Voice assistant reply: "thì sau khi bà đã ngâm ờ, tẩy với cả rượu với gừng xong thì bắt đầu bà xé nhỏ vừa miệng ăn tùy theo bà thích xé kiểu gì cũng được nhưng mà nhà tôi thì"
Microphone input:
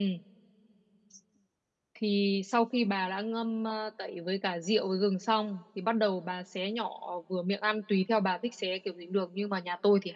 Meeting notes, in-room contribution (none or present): none